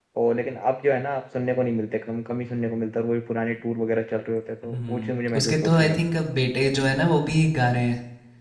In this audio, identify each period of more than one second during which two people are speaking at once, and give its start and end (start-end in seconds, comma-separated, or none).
4.6-6.0